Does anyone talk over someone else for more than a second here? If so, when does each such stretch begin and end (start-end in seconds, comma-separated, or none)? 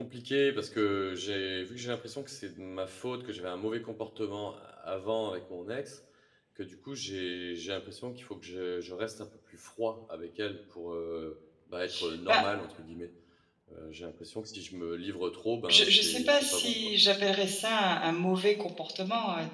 15.7-16.9